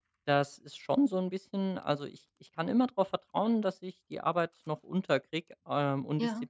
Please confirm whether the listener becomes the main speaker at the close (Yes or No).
No